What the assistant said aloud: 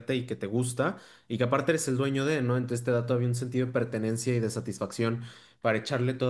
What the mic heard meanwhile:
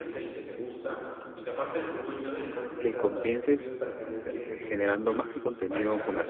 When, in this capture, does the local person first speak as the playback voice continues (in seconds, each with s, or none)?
2.8 s